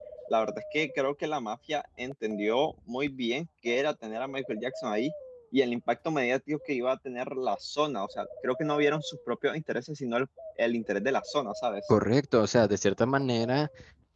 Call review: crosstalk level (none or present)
none